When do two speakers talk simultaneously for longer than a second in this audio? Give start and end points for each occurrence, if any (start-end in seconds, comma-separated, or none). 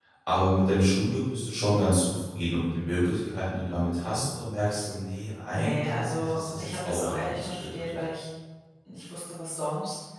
5.5-7.9